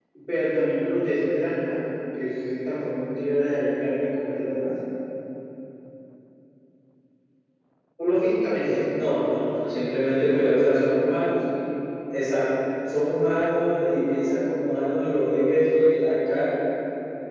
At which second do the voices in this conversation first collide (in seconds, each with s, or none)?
none